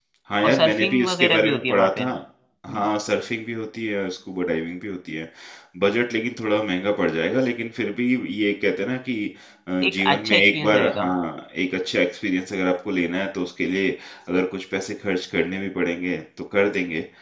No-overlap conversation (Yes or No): No